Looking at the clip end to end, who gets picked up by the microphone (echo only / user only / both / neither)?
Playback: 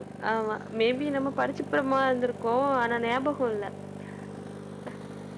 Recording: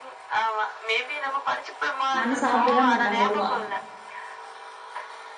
both